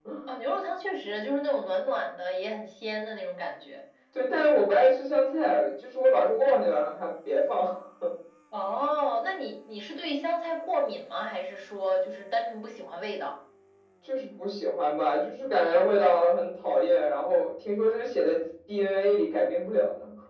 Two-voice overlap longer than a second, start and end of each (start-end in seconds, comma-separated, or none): none